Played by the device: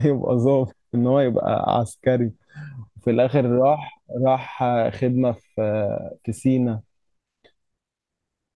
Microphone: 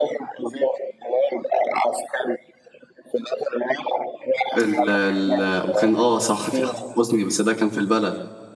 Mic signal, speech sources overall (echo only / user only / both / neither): both